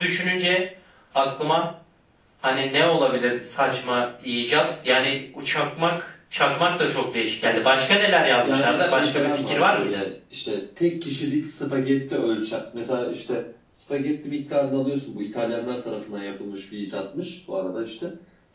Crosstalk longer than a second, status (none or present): present